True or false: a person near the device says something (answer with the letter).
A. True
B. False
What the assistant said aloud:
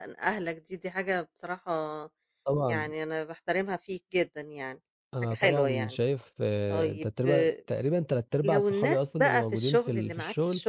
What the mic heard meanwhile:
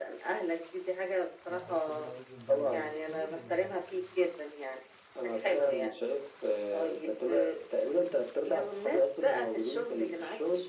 A